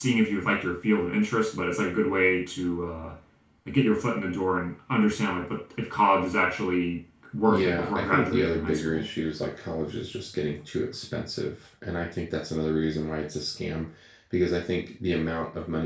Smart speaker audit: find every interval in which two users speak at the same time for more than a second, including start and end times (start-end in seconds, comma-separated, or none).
7.4-9.1